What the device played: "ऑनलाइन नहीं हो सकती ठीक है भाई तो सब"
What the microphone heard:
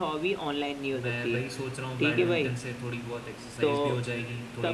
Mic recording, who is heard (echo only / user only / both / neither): both